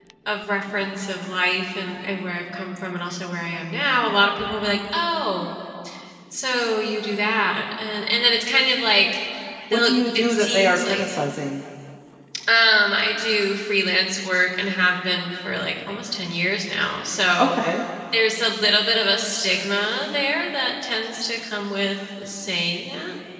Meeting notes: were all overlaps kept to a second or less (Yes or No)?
No